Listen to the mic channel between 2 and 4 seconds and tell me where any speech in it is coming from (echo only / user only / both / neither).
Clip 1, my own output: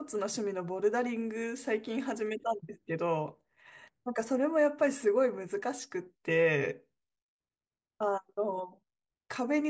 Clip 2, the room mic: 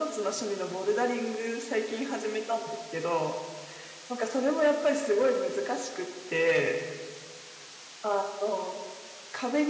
echo only